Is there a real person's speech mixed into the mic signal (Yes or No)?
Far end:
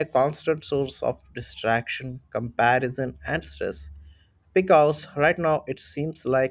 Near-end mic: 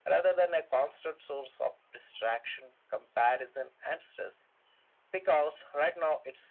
No